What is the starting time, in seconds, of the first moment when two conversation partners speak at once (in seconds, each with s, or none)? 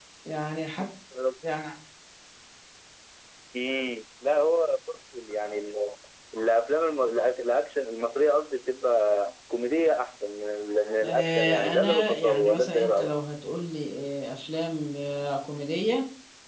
11.0 s